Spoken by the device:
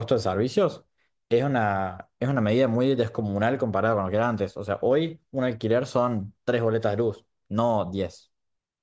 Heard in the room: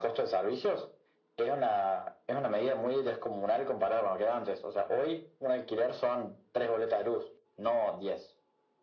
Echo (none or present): present